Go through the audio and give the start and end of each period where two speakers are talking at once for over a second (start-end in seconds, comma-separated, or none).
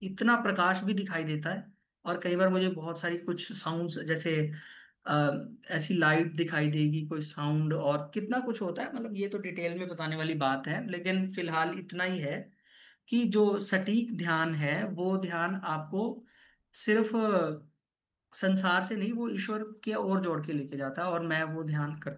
none